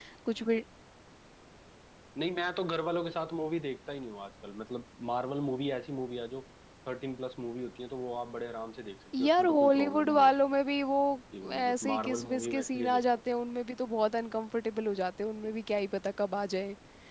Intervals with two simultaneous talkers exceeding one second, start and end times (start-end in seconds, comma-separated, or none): 9.2-10.5, 11.5-13.0